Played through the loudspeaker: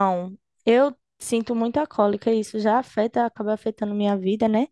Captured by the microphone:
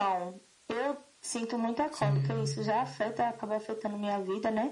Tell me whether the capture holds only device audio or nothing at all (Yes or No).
No